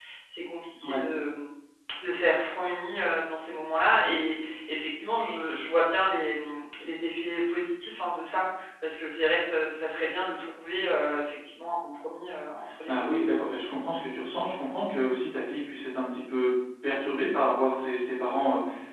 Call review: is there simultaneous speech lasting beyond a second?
No

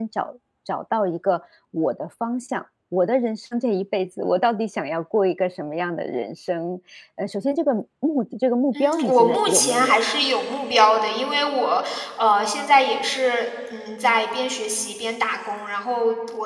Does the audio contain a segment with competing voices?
Yes, from 8.7 s

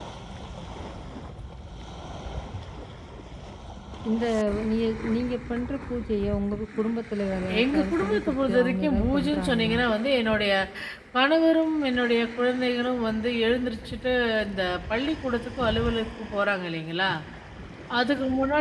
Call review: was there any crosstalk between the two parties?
Yes, from 7.5 s

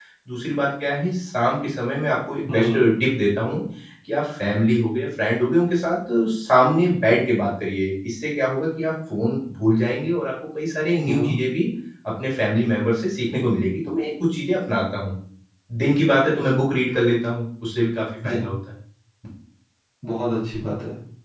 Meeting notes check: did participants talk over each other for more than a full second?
No

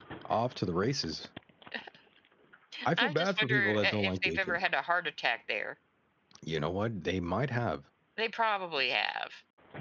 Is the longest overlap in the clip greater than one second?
Yes, from 3.0 s

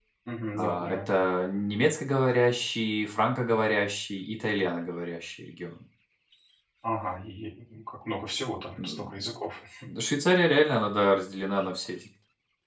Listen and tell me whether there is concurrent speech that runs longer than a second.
No

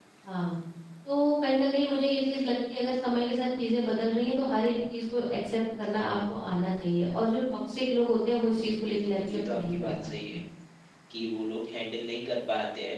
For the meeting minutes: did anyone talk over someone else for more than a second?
Yes, from 8.8 s

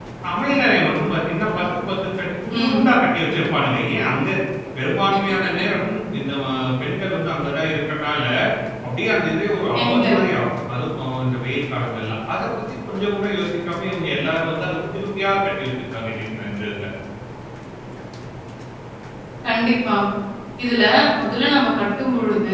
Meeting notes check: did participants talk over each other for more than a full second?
No

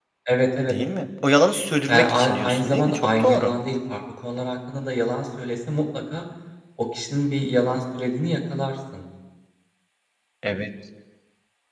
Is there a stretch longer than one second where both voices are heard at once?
Yes, from 1.9 s

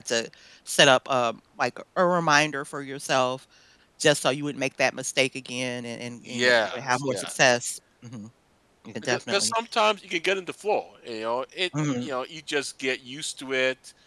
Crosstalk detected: Yes, from 6.3 s

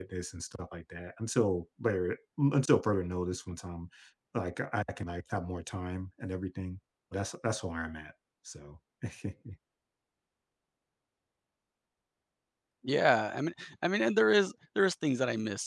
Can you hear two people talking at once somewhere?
No

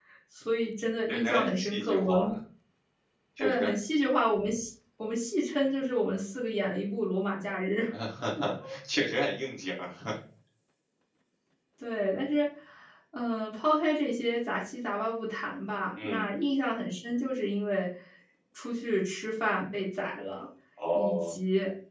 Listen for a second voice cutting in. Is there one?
Yes, from 1.1 s

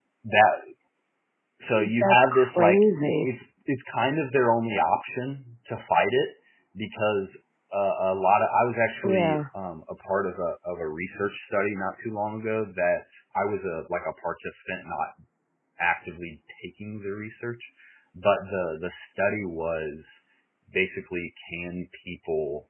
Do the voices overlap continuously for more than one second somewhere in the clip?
Yes, from 2.0 s

